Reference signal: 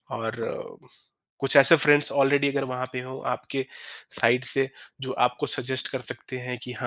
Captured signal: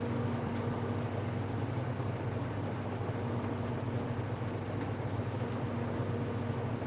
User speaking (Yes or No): No